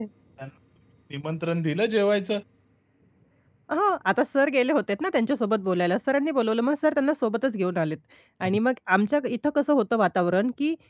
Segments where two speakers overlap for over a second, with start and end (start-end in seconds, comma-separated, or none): none